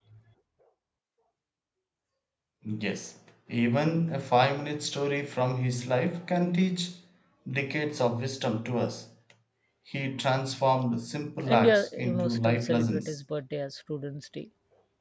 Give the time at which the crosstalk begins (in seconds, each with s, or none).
11.5 s